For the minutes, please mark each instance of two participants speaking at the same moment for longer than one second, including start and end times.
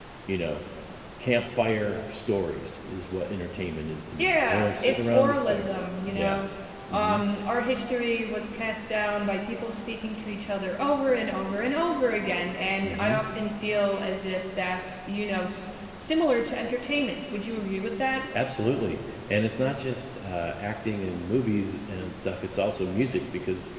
4.2-5.7

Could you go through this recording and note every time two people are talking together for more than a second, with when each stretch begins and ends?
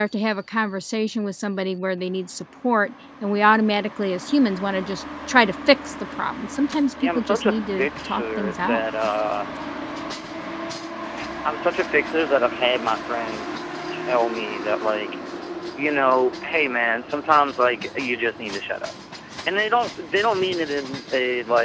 7.0-8.8

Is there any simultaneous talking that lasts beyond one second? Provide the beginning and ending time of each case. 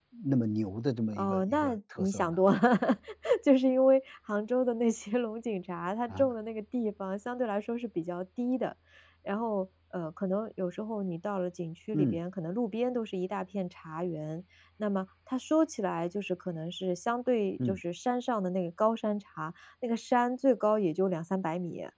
1.1-2.4

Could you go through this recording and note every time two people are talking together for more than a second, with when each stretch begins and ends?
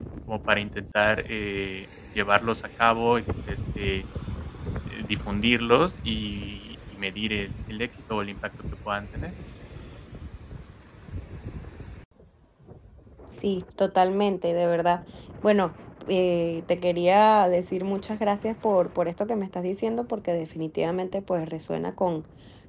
none

